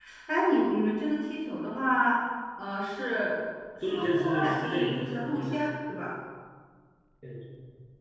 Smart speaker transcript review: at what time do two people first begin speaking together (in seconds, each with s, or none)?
3.8 s